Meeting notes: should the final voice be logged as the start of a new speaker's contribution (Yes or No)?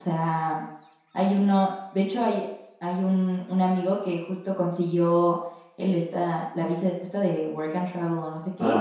No